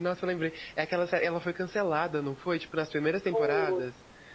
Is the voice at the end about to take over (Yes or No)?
Yes